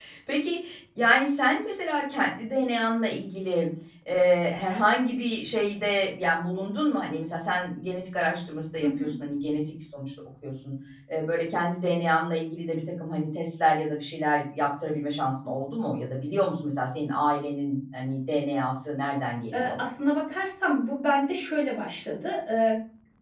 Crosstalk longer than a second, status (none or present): none